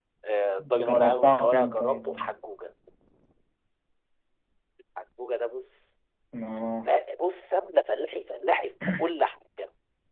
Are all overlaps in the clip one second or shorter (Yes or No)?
No